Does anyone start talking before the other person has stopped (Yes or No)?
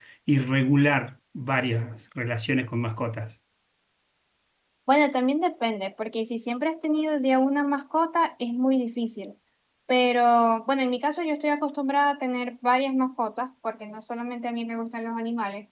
No